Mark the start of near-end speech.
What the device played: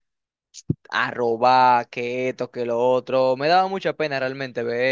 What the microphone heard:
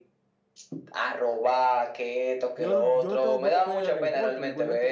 2.6 s

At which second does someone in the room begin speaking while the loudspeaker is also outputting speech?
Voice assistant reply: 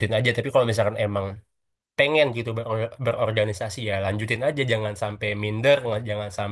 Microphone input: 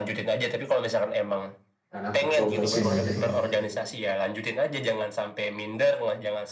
1.9 s

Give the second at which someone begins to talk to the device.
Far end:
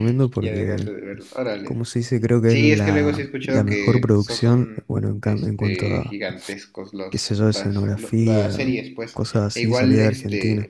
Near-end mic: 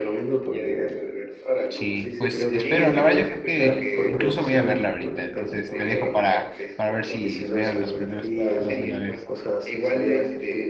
1.7 s

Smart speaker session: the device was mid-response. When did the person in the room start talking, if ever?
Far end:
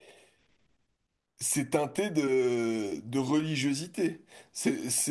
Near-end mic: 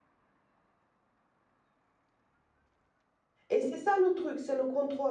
3.5 s

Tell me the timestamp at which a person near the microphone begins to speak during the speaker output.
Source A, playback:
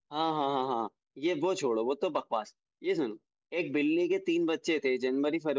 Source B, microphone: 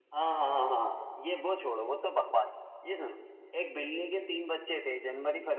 none

